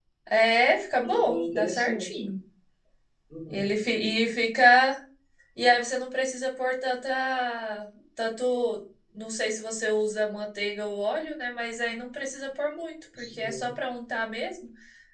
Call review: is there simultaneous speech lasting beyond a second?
Yes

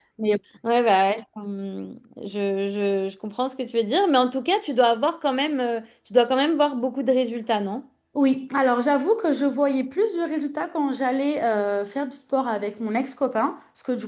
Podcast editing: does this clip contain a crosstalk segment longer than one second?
No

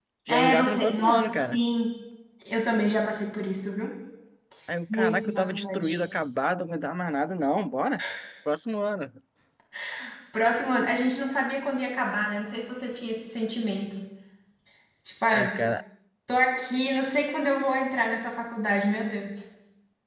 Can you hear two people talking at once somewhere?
Yes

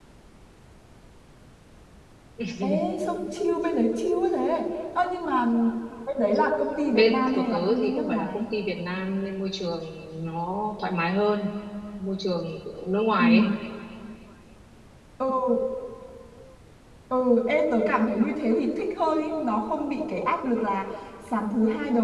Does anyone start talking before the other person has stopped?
Yes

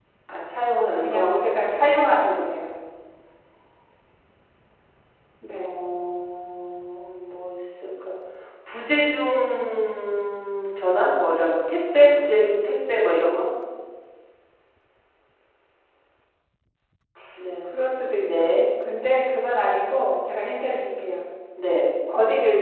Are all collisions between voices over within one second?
Yes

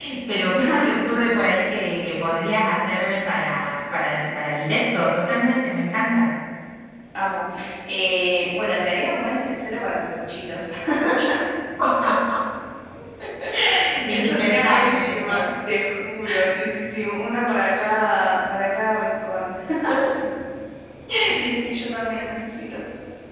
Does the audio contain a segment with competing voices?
Yes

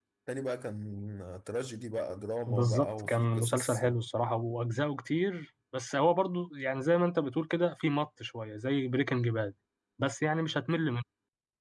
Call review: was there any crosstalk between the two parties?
Yes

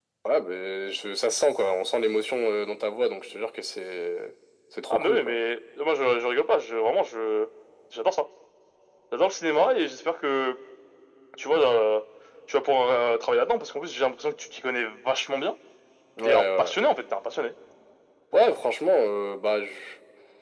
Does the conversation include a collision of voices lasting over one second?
No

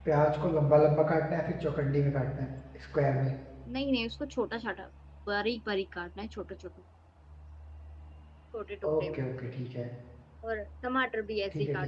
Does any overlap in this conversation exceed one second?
No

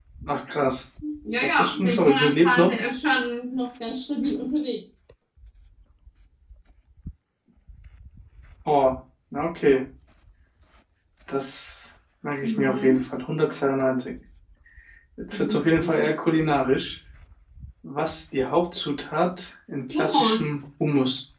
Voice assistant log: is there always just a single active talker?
No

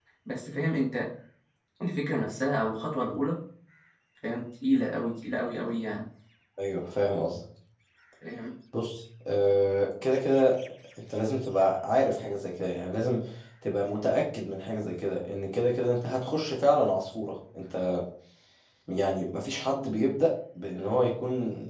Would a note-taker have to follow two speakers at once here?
No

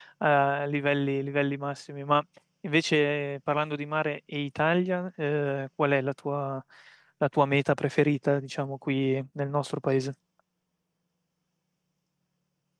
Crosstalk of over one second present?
No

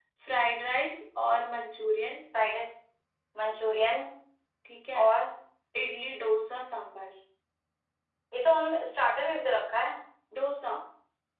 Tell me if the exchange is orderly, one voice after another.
Yes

